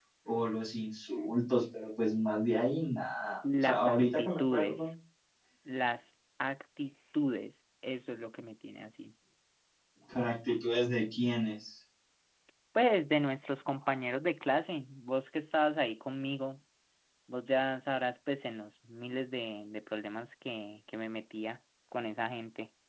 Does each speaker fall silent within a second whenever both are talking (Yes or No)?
No